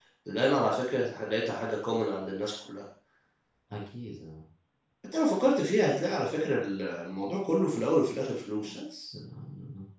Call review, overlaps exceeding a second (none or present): none